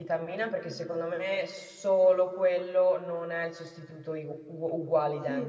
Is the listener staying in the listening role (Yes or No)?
No